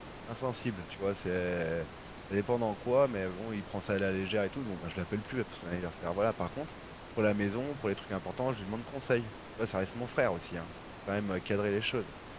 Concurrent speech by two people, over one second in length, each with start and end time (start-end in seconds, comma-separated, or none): none